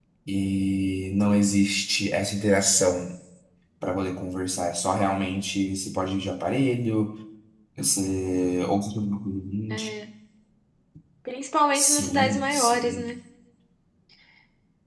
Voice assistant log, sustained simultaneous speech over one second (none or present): present